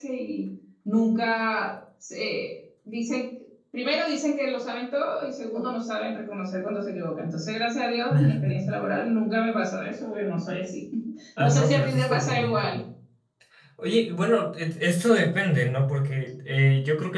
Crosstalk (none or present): present